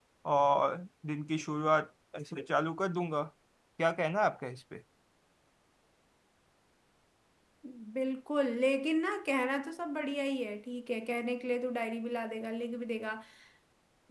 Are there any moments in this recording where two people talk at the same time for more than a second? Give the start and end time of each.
none

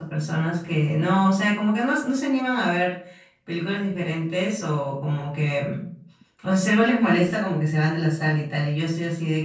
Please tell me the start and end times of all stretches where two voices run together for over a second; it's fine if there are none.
none

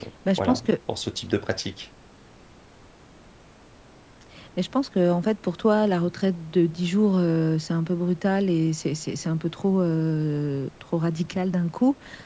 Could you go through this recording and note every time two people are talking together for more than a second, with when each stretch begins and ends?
none

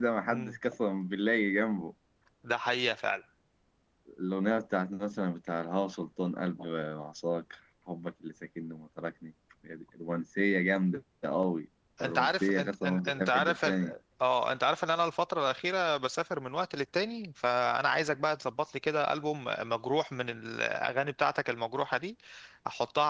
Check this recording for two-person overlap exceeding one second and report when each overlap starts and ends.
12.0-13.9

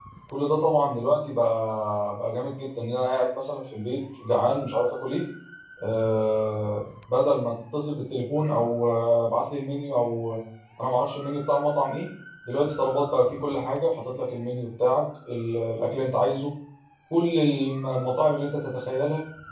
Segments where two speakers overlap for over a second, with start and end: none

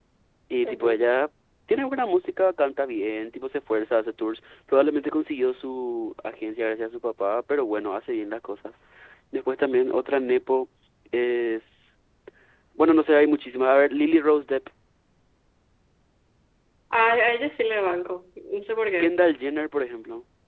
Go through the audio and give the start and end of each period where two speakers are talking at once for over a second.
none

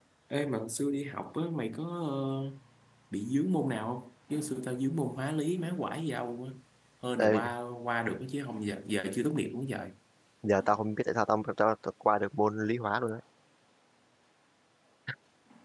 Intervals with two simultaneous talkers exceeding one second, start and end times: none

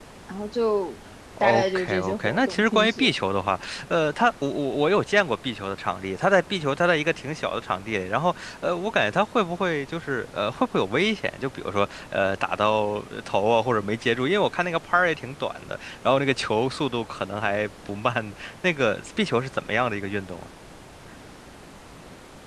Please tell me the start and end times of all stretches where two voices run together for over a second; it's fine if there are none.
1.4-3.1

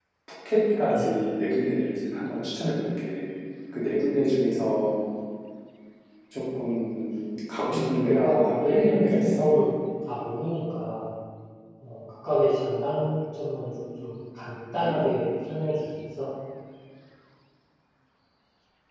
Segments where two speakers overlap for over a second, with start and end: 7.7-9.5

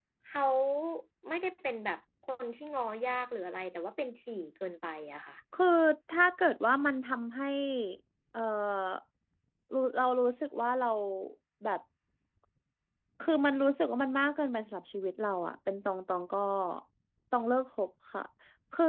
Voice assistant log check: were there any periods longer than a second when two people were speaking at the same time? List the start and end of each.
none

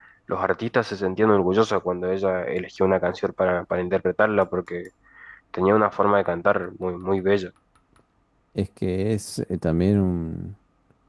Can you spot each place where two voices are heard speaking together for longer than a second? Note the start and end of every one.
none

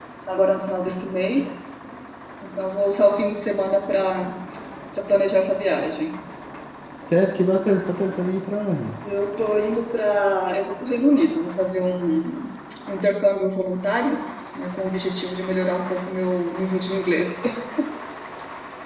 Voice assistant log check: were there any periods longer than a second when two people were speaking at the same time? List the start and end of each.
none

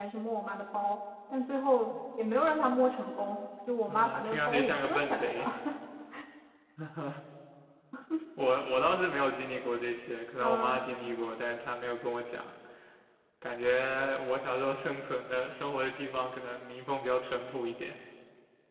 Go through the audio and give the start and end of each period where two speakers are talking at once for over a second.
3.9-5.5

